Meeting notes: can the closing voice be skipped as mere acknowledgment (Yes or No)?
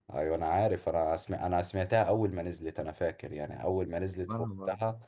Yes